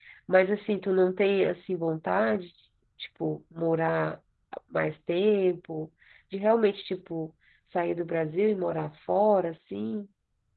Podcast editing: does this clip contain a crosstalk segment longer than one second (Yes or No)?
No